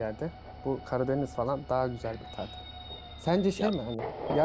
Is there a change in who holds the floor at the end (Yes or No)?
No